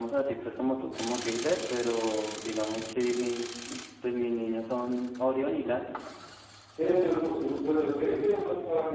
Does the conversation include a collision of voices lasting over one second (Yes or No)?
No